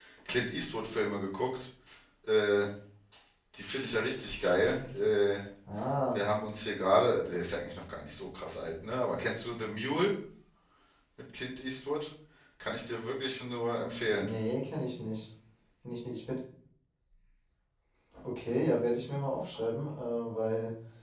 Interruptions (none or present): none